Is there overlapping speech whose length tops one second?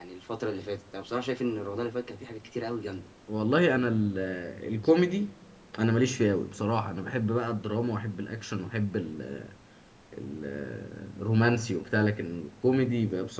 No

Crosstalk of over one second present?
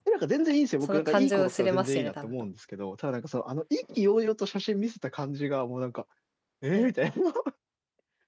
Yes, from 0.8 s

